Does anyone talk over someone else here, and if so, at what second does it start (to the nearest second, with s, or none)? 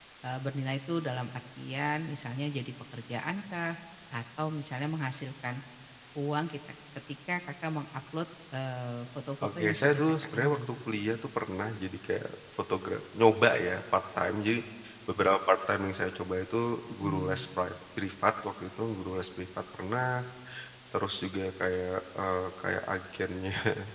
9 s